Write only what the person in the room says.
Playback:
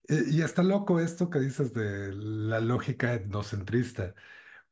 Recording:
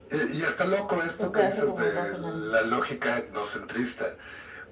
O sea, hace como dos semanas.

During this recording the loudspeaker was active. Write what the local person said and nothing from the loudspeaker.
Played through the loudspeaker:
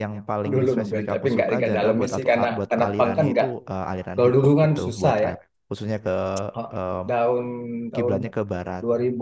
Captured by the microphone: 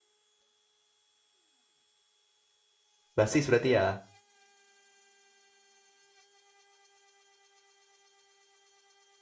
basis berarti ya.

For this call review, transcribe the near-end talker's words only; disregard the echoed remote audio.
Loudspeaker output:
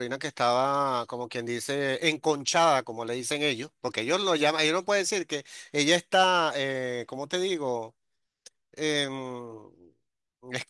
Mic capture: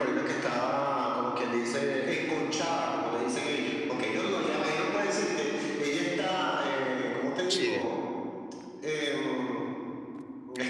Sí,

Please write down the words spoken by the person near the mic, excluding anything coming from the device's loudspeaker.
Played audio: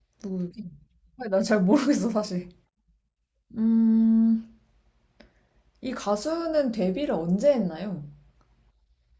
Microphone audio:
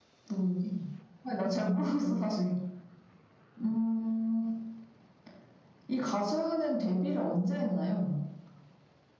none

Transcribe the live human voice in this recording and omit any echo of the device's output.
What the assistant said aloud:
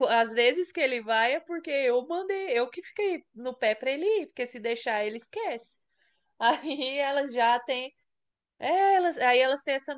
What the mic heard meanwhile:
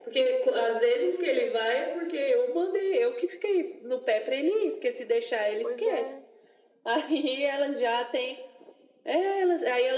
pois é.

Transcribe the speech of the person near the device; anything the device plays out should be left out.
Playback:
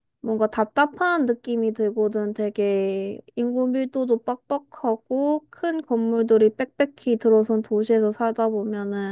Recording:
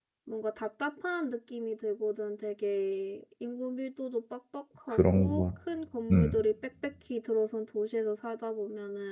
그런 걸, 음,

